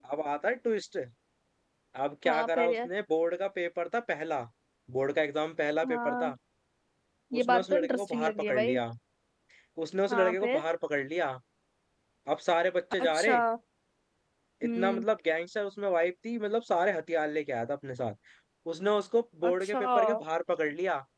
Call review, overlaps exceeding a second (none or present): present